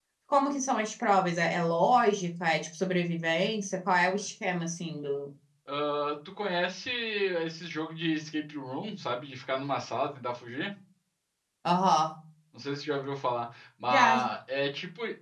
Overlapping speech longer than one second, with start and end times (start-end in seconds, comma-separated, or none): none